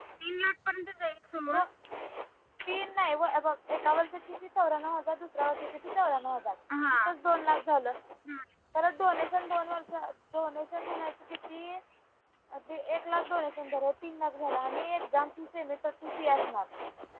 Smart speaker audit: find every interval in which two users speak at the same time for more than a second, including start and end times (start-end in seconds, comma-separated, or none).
none